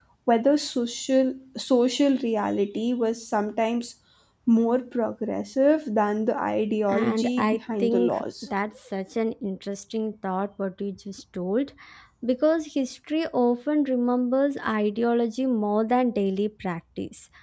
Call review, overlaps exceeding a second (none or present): present